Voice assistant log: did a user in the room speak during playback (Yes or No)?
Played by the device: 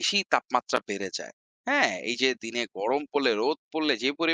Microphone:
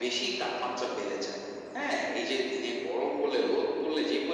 No